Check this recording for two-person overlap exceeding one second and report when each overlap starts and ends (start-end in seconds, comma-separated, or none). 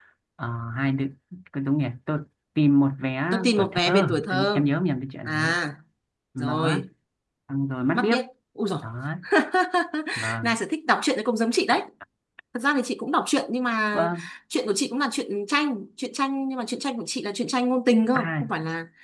3.3-4.6